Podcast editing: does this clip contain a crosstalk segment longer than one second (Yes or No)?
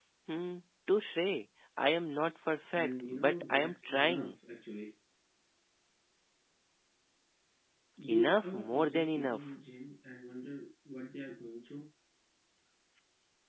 Yes